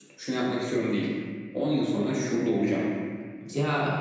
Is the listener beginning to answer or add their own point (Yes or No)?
Yes